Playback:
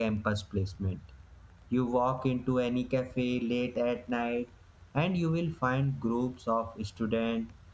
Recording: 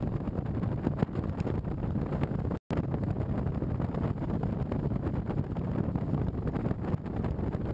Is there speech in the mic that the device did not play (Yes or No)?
No